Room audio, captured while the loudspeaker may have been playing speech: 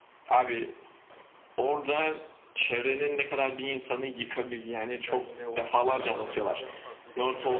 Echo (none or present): present